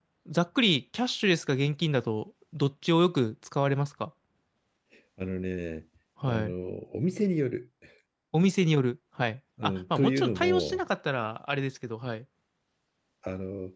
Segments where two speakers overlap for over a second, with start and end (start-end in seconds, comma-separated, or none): 9.6-10.8